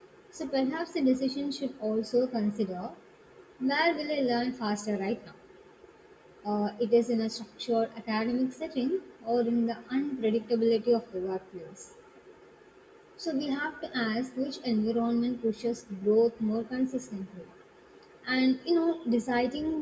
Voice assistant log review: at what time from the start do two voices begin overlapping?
none

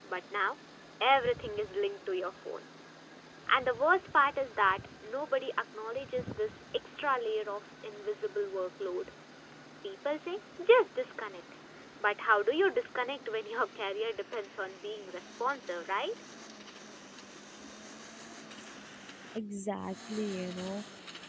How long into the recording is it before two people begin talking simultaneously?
none

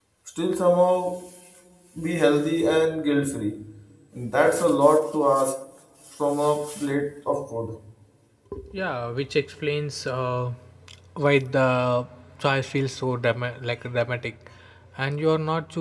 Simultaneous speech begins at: none

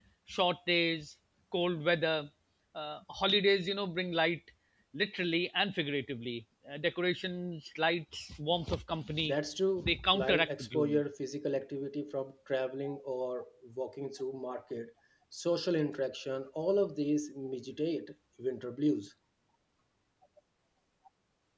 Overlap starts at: 10 s

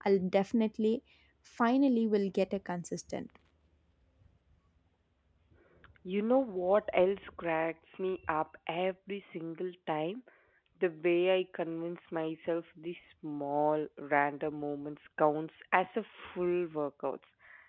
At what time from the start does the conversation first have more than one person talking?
none

